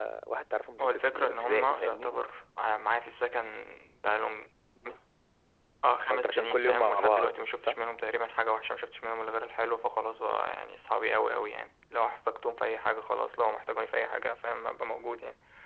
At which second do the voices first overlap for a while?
0.8 s

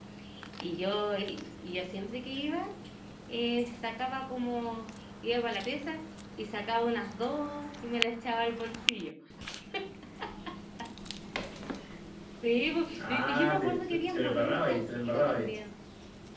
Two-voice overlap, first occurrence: 13.0 s

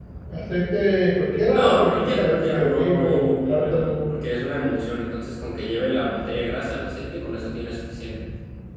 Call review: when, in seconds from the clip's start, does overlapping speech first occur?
1.5 s

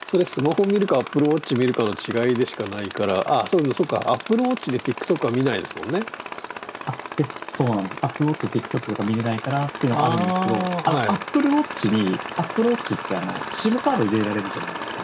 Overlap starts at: 9.9 s

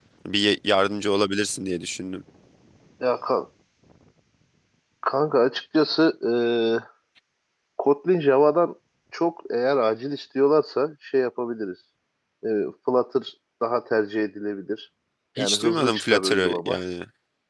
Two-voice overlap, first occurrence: 15.4 s

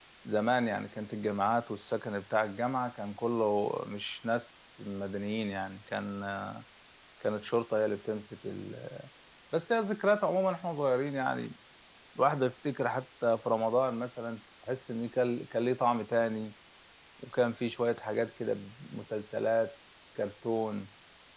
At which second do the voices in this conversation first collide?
none

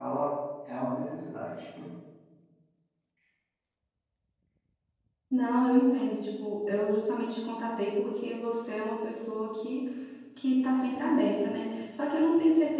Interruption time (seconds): none

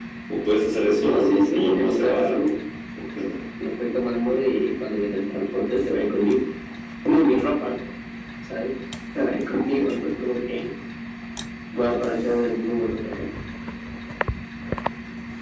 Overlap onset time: 1.0 s

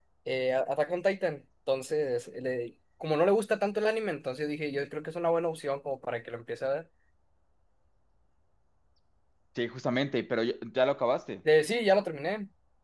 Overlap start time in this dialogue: none

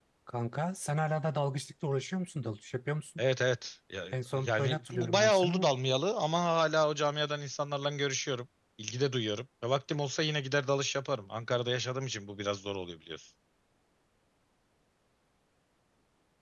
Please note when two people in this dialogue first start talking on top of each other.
4.5 s

